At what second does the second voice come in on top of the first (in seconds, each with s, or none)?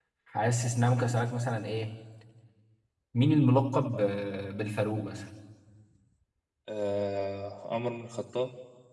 none